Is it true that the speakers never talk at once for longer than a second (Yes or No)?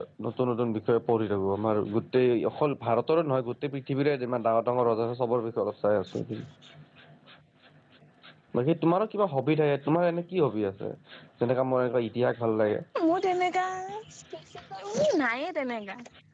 Yes